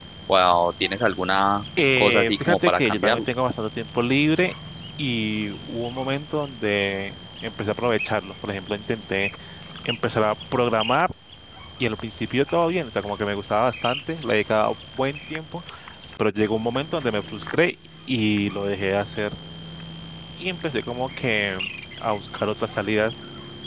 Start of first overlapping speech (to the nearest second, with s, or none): 2 s